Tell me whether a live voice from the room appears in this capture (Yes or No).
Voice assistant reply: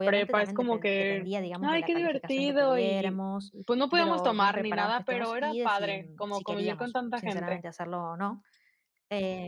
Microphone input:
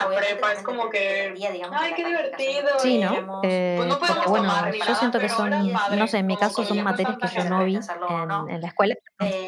Yes